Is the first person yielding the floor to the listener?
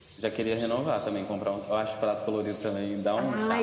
Yes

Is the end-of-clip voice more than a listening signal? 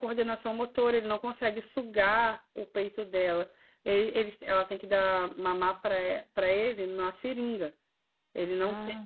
No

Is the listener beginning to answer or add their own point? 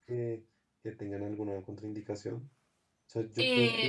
Yes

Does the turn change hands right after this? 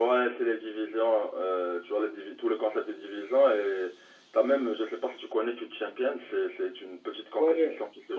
Yes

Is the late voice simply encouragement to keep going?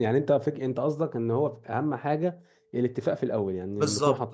No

